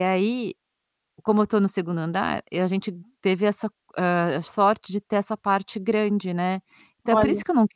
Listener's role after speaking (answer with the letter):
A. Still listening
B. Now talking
A